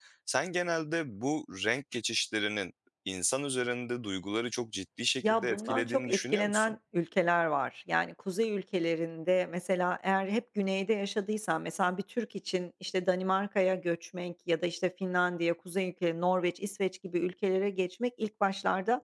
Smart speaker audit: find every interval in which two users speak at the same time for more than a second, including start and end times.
5.2-6.7

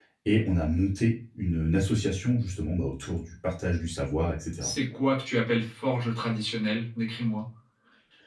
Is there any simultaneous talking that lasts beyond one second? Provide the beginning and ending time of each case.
none

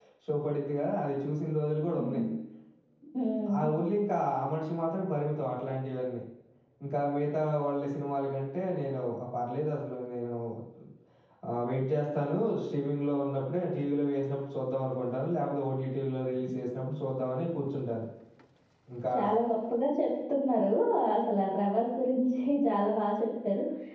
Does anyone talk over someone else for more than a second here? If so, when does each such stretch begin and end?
none

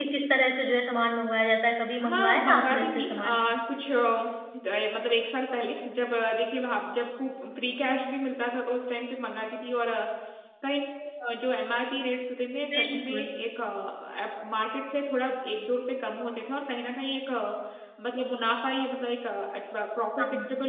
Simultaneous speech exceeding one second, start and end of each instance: 2.0-3.4

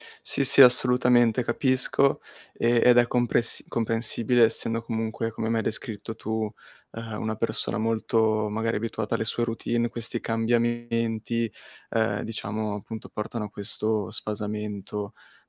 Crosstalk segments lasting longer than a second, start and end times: none

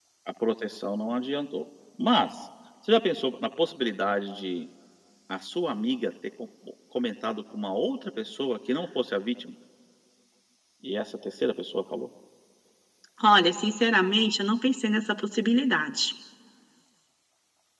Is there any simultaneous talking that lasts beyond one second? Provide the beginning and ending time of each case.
none

